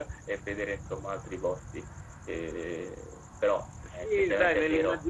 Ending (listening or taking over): taking over